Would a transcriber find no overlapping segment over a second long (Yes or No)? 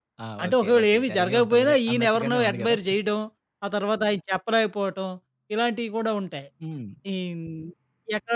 No